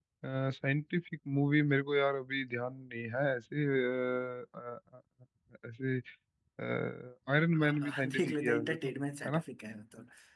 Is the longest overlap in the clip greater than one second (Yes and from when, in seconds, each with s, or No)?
Yes, from 7.5 s